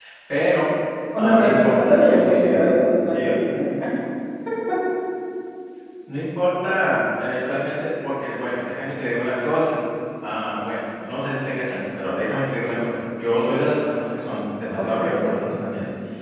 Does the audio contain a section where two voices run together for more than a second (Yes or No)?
Yes